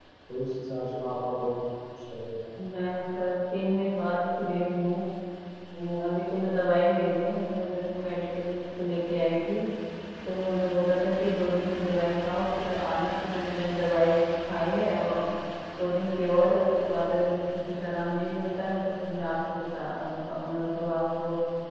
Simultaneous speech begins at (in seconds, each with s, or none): none